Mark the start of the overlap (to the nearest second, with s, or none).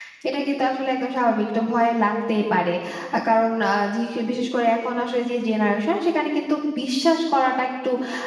none